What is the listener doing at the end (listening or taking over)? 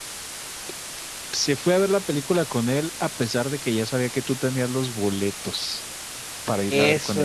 taking over